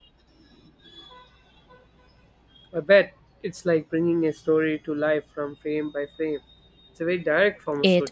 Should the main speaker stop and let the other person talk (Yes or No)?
Yes